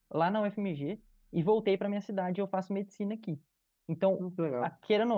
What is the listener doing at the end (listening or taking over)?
listening